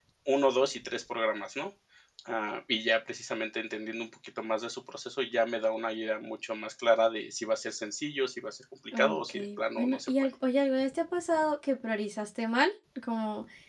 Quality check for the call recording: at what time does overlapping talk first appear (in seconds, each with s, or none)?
8.9 s